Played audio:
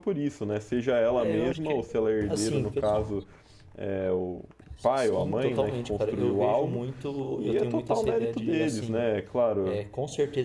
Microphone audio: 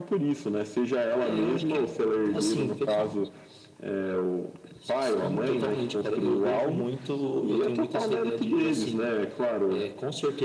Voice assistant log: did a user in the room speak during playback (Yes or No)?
No